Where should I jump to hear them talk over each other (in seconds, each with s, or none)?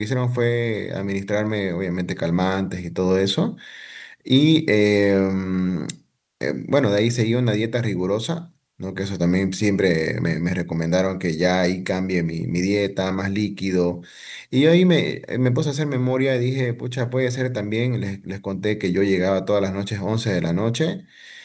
none